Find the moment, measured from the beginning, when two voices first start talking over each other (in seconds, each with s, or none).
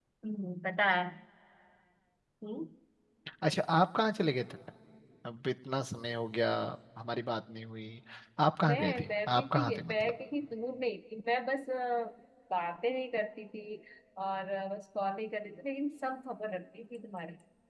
8.7 s